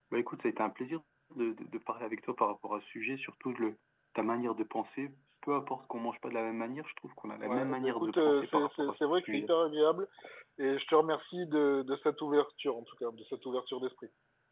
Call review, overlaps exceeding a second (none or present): present